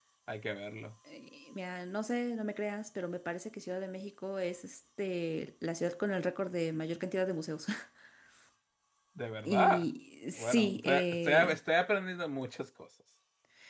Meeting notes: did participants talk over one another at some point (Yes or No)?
Yes